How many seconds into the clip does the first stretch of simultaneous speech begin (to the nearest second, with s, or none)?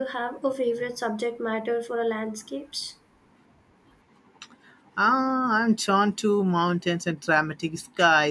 none